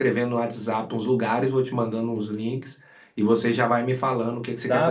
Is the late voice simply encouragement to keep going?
No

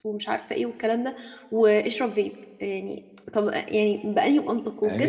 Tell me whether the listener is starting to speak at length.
No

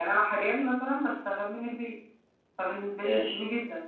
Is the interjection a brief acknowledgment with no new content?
Yes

